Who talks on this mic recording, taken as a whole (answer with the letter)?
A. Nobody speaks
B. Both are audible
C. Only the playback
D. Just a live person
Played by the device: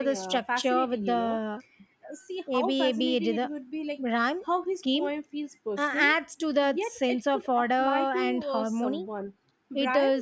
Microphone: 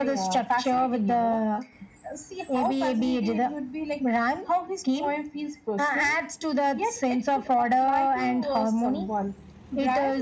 C